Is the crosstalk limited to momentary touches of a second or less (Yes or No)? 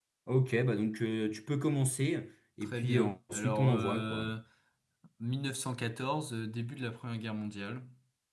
No